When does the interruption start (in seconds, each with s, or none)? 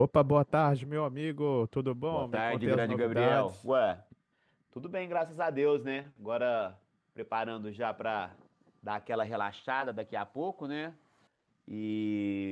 2.1 s